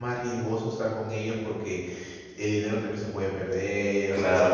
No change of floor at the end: No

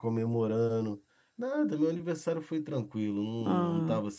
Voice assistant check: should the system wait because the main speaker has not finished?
Yes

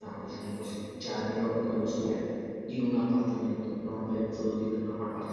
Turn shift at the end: Yes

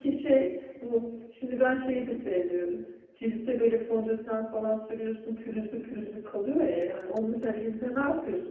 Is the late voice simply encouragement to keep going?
Yes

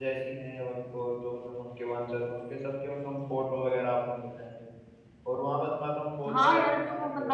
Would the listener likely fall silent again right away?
No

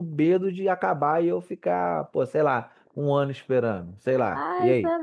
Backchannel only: No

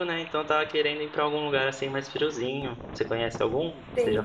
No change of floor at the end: No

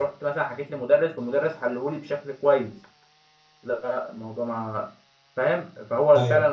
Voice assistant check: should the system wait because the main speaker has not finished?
Yes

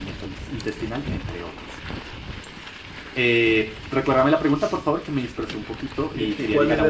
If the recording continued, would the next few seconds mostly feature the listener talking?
Yes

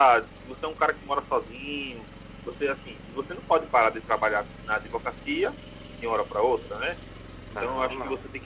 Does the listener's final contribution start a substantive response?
No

